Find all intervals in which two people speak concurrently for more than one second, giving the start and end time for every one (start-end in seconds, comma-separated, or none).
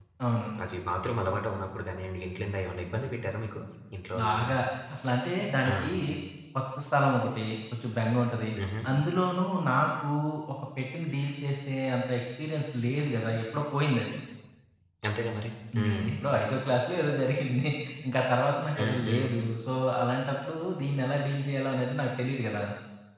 none